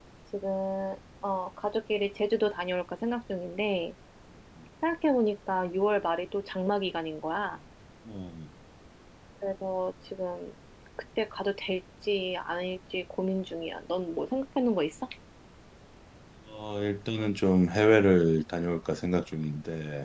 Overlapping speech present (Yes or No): No